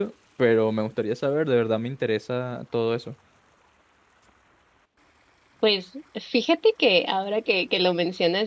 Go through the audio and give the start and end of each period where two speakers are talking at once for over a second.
none

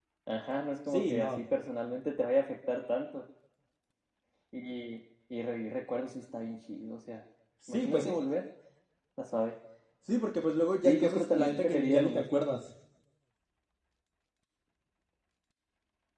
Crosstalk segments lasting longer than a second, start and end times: 10.8-12.2

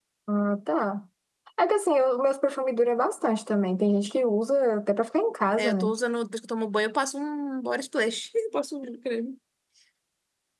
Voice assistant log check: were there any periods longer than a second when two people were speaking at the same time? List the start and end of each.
none

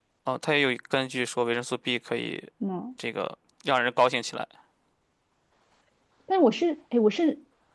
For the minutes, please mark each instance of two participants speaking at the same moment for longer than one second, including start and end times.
none

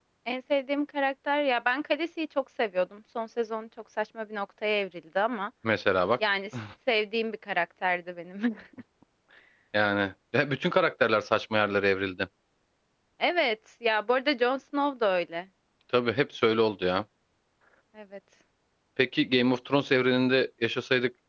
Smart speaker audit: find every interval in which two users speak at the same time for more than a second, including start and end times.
none

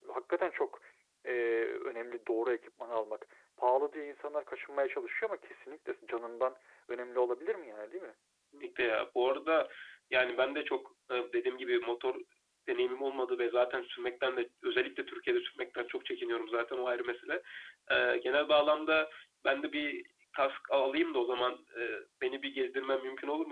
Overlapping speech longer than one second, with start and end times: none

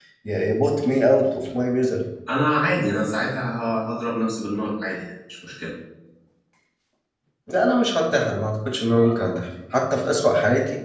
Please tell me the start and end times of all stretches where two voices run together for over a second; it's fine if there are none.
none

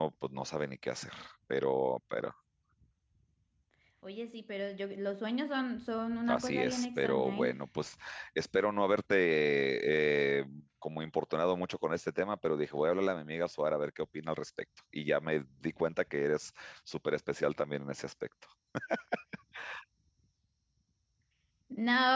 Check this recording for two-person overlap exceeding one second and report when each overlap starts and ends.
6.3-7.5

